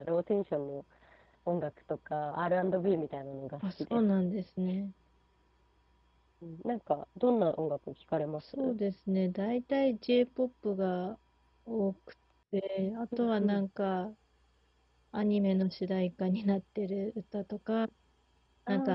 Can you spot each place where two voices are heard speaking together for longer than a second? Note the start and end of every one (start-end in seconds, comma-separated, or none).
none